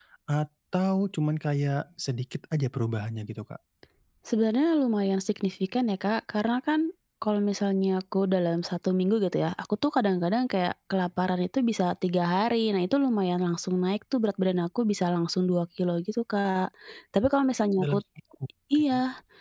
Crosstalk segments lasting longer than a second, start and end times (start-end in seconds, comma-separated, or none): none